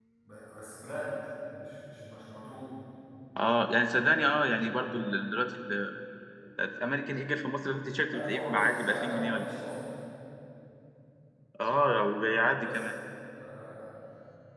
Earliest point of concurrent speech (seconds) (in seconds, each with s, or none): 8.1 s